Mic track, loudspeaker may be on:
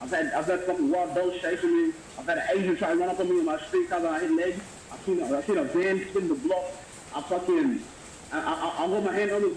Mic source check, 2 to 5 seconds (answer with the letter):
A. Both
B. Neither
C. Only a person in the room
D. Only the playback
D